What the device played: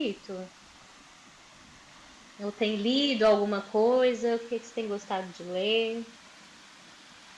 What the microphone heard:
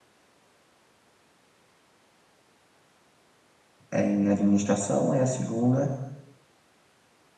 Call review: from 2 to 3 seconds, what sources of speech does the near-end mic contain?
neither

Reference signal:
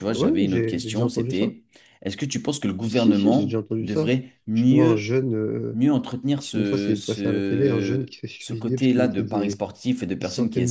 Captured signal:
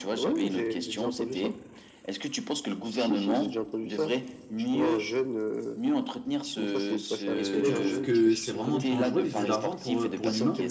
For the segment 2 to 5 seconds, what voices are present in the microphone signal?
echo only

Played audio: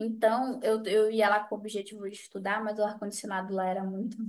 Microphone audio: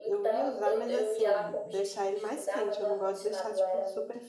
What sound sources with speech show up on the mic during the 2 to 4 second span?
both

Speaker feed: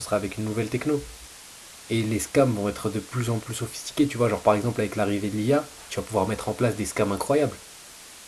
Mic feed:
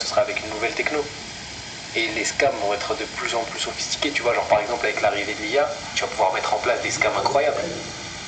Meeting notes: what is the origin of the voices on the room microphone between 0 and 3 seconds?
echo only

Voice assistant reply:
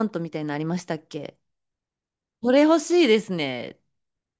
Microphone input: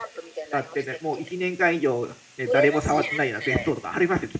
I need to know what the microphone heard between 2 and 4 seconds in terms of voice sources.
both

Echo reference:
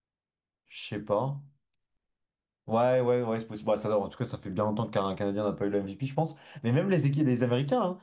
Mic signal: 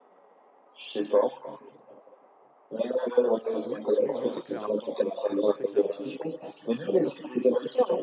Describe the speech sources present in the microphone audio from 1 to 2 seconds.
echo only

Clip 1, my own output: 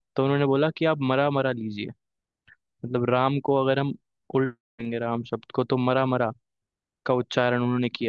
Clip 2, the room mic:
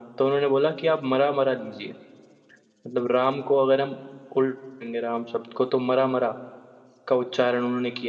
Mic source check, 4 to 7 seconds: echo only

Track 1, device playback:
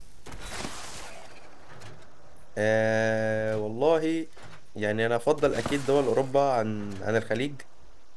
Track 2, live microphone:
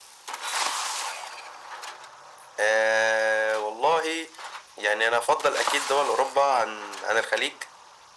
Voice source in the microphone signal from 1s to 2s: neither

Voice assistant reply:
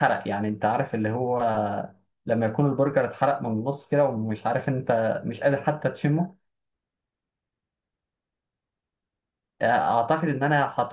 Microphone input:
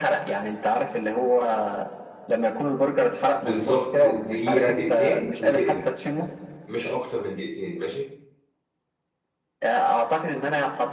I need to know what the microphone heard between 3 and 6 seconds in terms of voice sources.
both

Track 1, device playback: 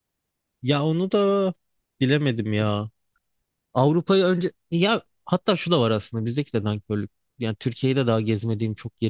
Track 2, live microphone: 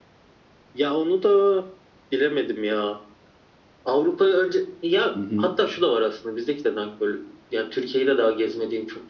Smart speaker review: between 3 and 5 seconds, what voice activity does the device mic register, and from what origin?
echo only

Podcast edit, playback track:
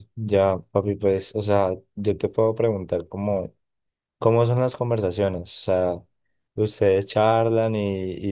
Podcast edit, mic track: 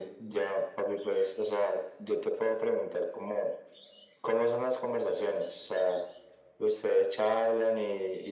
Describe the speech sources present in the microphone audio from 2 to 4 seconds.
echo only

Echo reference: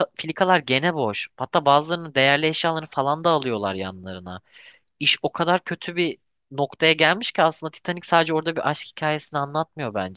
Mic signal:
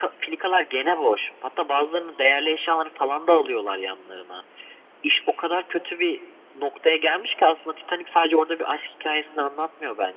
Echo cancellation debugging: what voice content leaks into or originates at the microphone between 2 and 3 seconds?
echo only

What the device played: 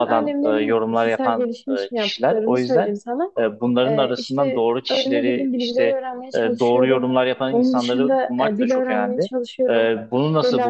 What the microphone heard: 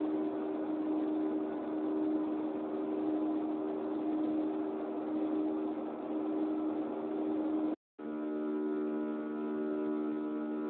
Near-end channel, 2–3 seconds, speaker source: neither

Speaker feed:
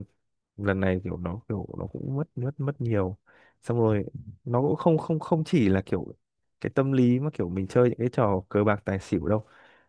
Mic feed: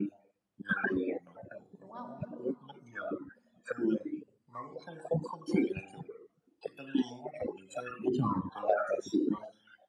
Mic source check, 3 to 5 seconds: echo only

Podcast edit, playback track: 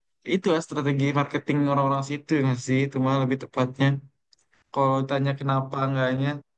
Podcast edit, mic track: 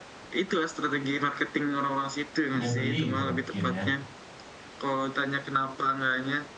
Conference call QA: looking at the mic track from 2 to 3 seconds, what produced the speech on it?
both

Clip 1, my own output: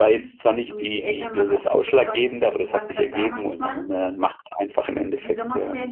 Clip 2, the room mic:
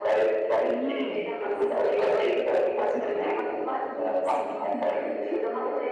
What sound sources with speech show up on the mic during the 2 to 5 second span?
both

